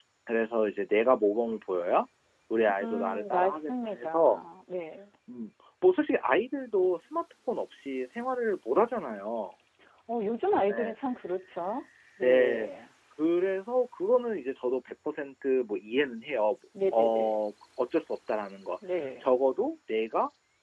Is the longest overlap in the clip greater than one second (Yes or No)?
Yes